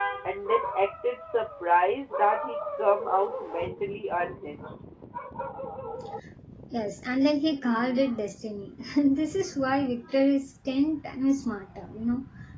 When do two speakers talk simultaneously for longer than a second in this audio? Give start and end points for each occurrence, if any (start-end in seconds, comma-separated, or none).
none